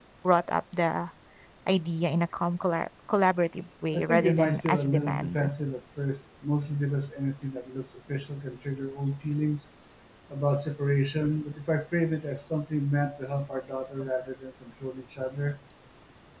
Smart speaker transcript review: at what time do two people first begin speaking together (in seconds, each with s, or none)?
3.9 s